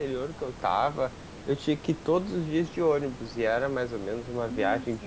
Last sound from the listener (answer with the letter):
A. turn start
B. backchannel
B